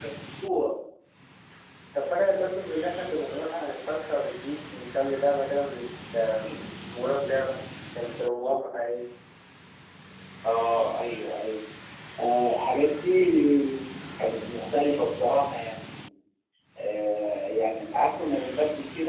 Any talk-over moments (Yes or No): No